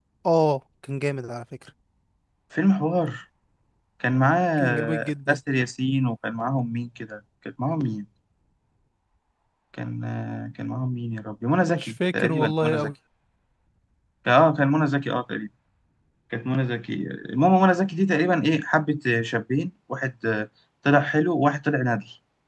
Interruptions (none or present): present